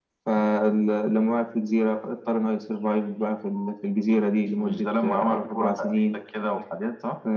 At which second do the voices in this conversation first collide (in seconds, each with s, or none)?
4.6 s